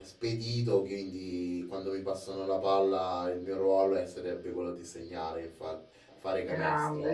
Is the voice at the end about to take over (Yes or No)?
Yes